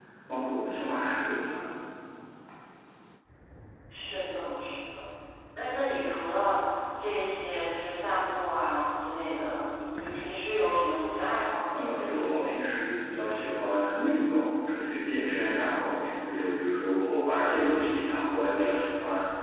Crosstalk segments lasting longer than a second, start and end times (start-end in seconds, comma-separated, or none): none